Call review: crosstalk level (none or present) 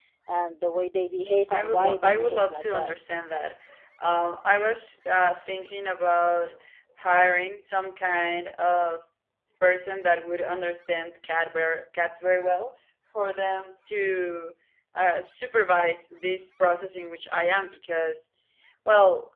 present